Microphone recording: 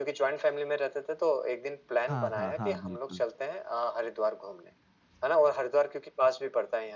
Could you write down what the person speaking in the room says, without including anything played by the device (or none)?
हाँ, हाँ, हाँ, बिल्कुल।